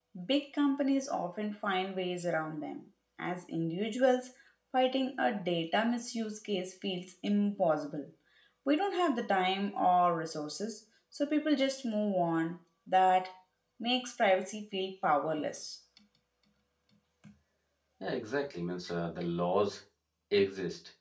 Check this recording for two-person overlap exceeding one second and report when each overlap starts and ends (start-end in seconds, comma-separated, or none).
none